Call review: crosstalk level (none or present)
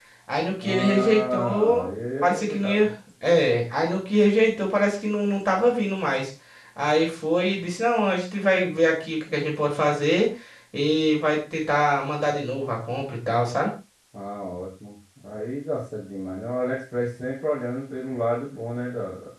present